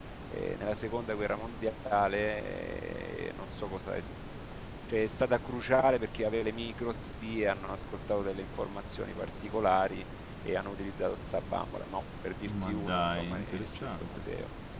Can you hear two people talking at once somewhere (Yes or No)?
Yes